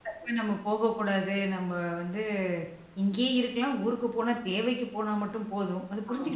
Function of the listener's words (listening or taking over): taking over